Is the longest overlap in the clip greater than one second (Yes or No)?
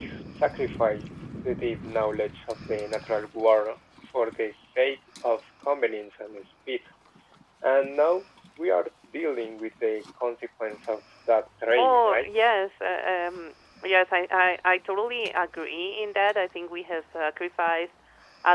No